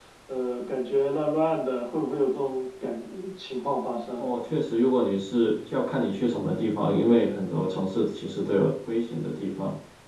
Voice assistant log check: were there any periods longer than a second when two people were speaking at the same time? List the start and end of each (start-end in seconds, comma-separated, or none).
none